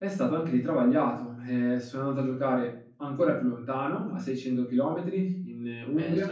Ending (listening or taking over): taking over